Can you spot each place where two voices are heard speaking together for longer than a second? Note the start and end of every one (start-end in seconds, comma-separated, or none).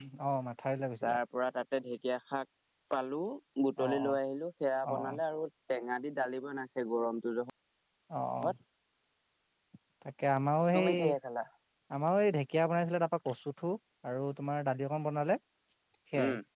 none